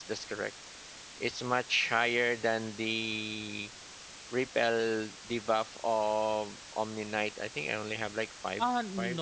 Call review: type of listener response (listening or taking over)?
taking over